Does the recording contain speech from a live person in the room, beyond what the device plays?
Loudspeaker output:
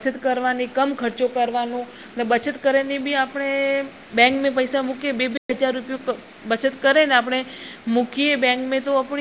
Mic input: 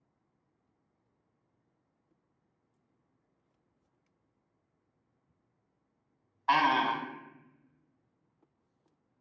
Yes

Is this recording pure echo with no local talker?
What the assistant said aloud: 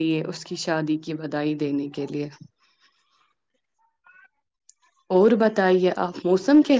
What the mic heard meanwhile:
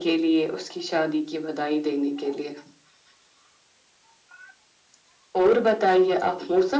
Yes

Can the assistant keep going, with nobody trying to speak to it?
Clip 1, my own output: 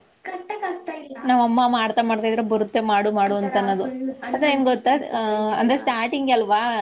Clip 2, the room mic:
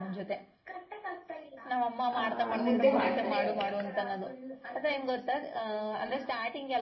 No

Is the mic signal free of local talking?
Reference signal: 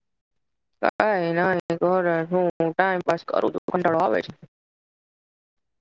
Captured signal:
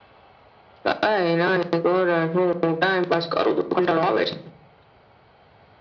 Yes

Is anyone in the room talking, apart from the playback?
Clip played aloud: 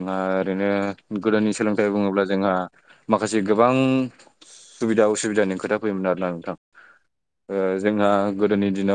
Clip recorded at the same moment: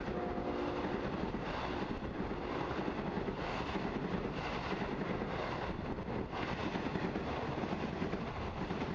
No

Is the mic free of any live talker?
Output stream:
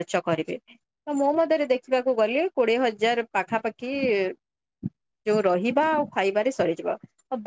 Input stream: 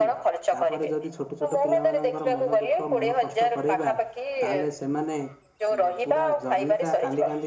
No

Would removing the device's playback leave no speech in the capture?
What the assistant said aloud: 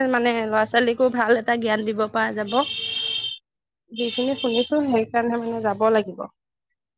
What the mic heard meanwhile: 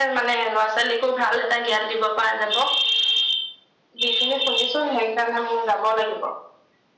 Yes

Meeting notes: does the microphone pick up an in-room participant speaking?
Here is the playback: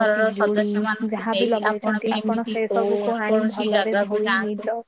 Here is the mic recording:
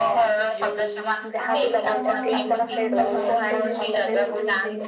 Yes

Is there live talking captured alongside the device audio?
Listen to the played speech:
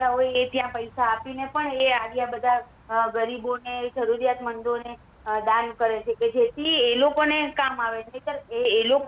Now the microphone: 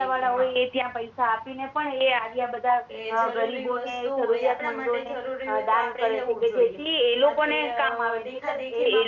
Yes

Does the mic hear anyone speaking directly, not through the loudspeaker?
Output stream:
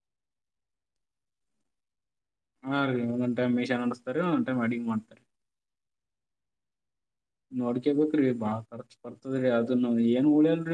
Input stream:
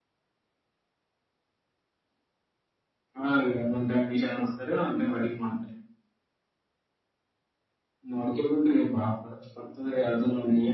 No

